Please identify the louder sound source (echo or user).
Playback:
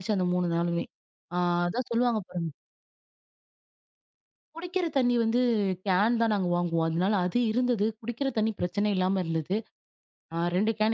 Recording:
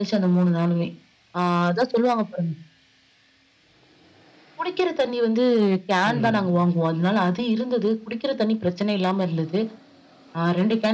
echo